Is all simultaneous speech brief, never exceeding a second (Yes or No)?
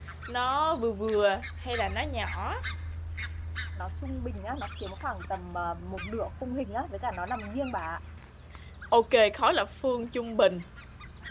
Yes